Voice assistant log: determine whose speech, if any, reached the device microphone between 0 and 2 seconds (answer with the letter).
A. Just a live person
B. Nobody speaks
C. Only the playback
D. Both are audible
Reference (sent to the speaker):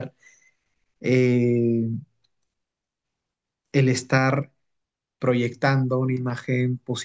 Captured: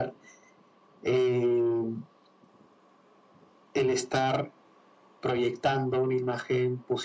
C